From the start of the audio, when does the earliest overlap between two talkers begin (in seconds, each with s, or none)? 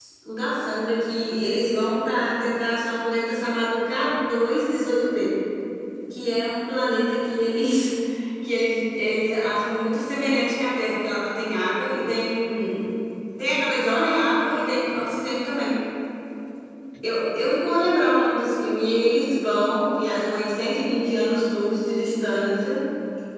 none